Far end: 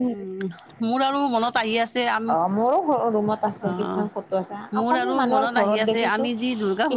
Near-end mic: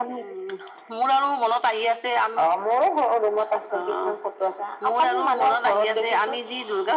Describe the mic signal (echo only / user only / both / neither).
echo only